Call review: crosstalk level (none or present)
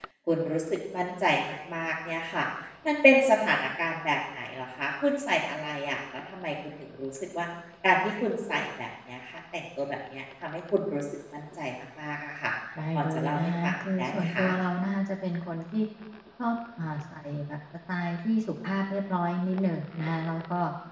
present